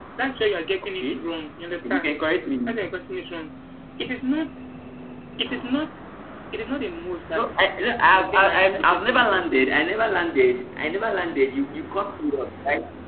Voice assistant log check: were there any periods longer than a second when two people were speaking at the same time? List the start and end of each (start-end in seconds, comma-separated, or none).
8.1-9.9